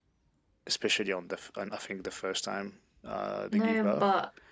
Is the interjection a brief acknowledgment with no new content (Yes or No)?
No